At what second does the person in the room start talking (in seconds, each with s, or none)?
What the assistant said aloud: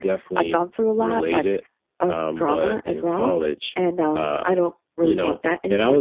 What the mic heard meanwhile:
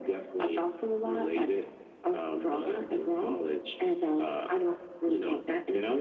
none